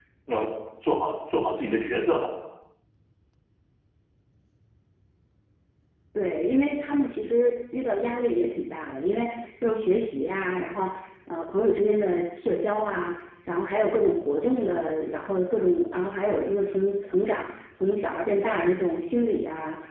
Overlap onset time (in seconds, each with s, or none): none